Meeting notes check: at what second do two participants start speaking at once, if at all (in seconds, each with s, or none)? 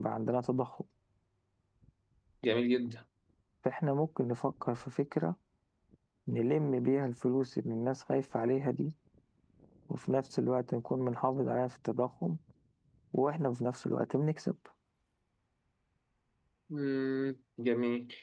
none